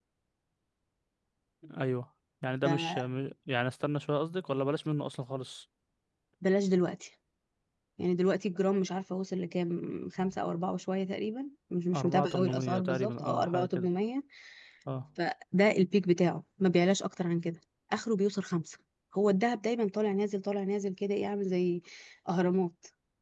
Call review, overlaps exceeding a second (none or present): present